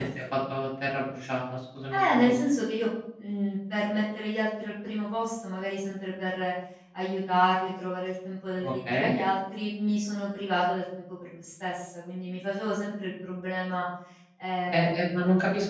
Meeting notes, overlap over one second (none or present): none